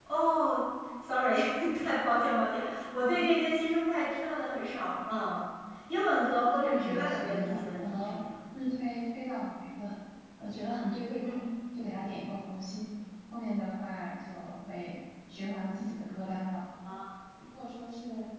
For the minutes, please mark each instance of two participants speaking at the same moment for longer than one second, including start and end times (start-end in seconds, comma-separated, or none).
6.5-8.2